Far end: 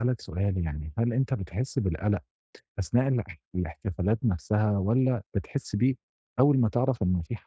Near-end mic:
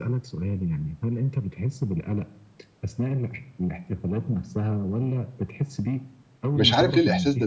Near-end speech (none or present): present